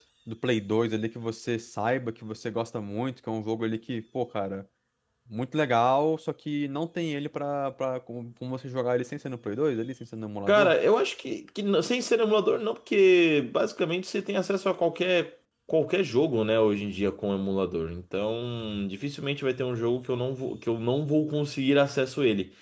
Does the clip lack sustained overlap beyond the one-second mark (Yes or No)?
Yes